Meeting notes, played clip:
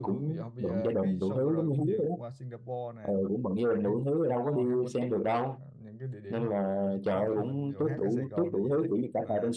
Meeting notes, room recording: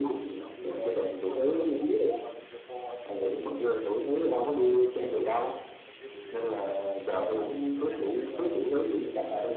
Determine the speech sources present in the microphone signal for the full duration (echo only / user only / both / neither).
echo only